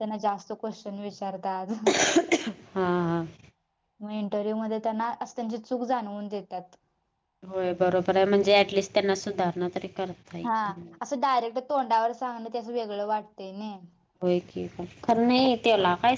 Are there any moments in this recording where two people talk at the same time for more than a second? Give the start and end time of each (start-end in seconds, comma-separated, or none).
none